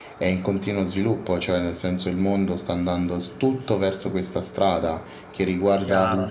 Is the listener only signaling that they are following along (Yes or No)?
Yes